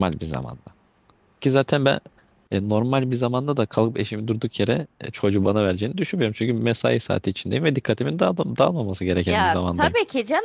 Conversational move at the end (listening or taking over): taking over